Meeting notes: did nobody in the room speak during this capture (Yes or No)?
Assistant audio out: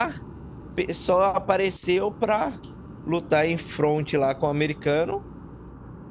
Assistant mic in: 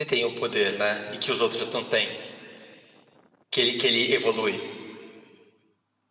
No